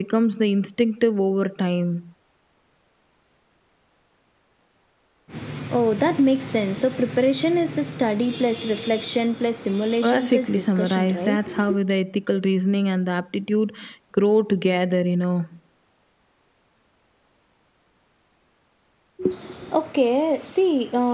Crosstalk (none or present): present